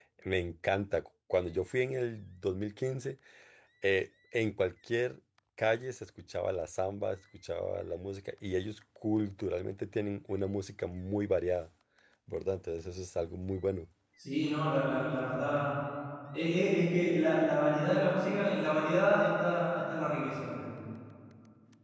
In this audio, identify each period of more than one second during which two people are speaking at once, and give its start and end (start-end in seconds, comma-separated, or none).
none